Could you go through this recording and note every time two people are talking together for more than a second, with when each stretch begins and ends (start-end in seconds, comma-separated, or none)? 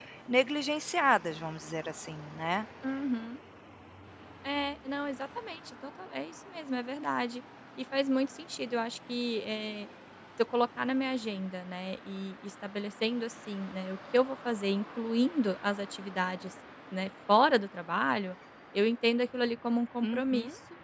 none